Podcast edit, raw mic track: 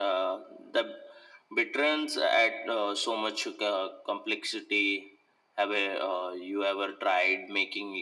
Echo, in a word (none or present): present